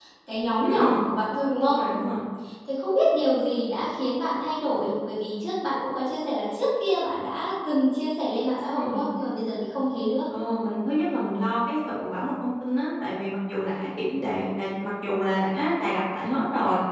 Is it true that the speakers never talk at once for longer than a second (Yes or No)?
Yes